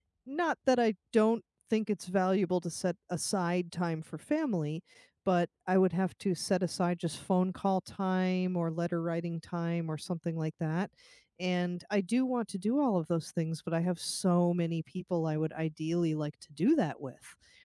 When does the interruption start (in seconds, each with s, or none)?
none